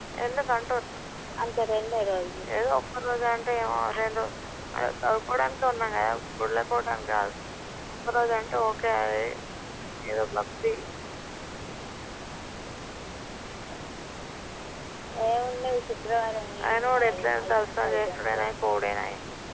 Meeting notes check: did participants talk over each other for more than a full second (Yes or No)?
Yes